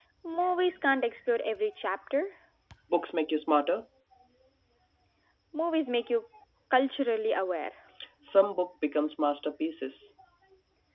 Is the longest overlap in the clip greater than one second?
No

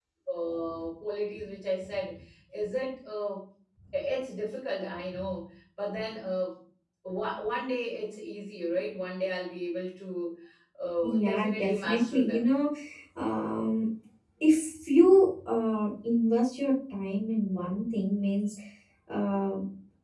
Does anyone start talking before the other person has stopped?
Yes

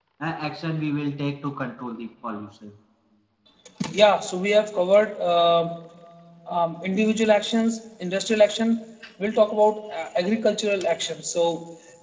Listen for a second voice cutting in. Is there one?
No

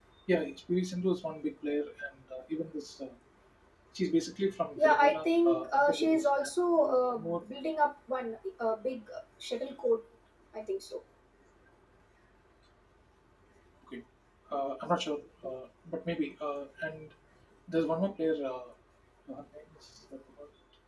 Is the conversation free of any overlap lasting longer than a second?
No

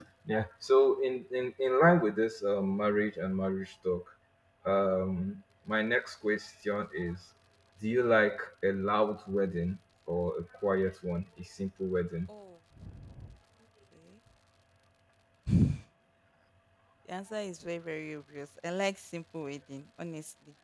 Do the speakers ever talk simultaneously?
No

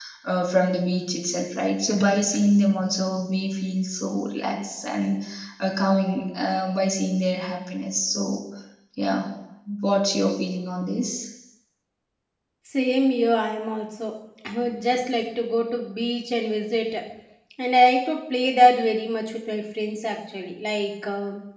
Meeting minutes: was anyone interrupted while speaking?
No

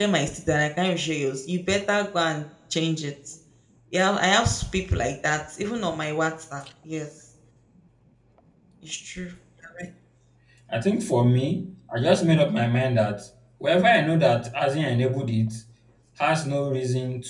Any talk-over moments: No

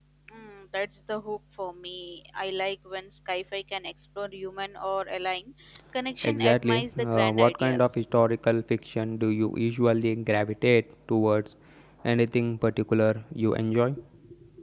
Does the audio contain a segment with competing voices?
Yes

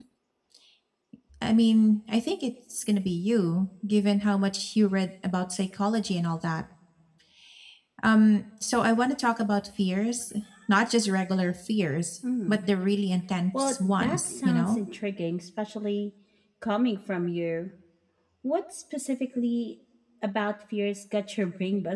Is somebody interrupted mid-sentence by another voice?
Yes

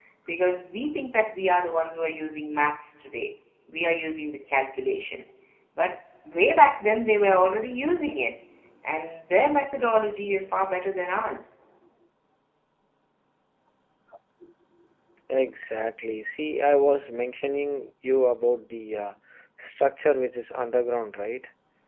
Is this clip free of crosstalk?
Yes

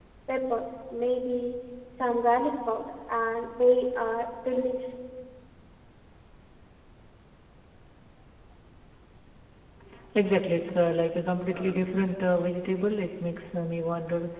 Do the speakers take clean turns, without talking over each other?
Yes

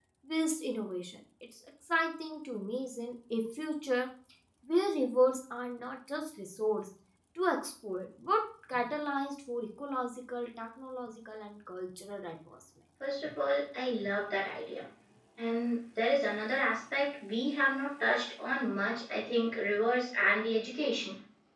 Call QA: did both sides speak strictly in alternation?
Yes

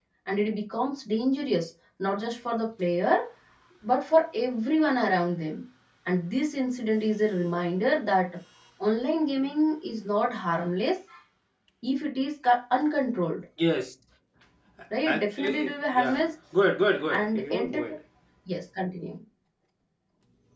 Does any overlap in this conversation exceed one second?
Yes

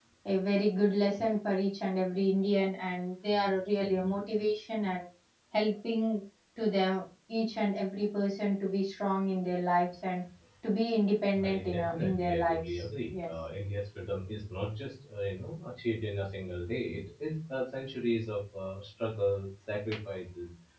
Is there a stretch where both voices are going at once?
Yes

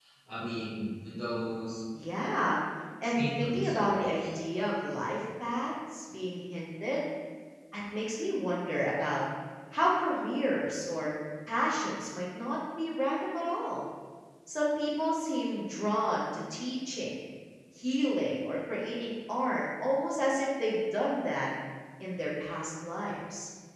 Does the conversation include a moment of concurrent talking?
Yes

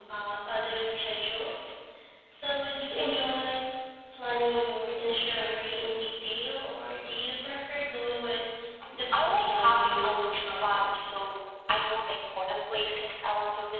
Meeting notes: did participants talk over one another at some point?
Yes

